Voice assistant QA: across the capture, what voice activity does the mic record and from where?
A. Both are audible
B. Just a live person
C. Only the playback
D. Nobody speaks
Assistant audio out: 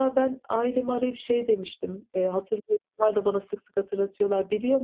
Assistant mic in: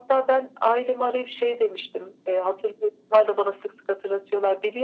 C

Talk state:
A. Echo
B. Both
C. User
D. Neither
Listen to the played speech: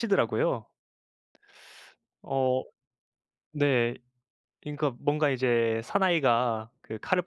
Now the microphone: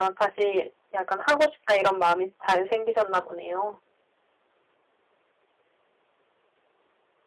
C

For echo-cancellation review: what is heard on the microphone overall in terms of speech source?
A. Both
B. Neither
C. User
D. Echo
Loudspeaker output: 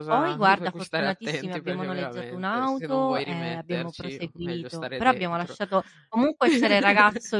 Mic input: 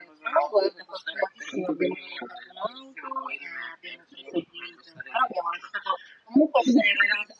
D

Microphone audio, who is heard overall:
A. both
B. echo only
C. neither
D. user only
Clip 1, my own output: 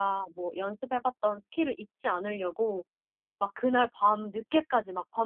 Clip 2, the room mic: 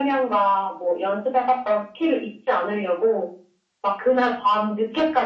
B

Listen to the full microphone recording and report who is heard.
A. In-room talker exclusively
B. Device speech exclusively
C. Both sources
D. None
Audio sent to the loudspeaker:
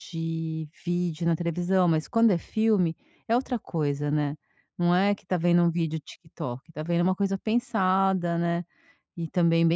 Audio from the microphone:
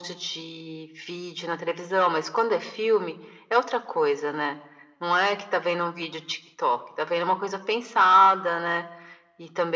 B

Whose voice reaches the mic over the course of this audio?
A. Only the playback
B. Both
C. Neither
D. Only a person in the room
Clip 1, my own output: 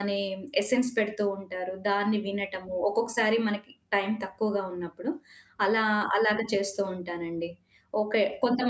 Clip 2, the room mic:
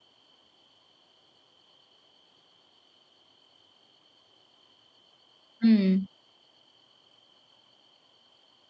D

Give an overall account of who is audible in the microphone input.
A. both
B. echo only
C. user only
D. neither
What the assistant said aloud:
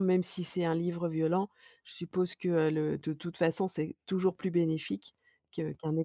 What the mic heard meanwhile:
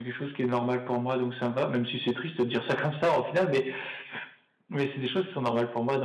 C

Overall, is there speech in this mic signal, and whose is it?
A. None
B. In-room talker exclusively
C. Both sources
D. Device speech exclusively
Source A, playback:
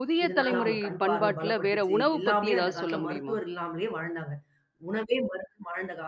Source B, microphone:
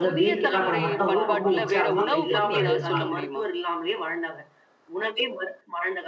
C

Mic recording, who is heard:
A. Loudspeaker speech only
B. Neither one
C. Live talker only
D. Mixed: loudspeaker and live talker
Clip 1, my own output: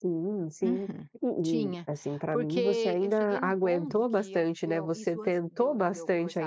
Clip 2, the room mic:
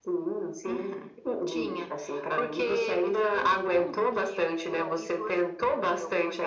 A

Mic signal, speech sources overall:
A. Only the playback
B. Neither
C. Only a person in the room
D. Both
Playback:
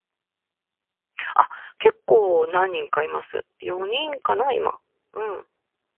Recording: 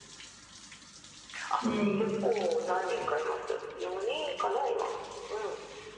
D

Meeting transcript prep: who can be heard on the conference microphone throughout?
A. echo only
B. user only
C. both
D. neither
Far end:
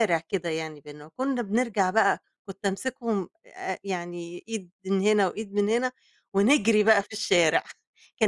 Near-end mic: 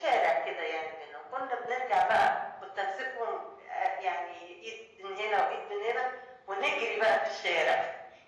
A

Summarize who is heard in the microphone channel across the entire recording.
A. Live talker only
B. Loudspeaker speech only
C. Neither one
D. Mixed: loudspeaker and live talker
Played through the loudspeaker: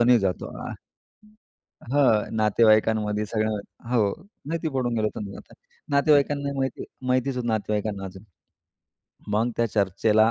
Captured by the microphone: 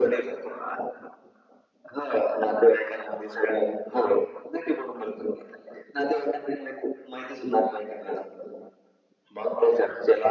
B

